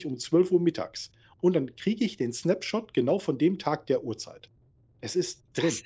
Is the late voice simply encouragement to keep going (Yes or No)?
No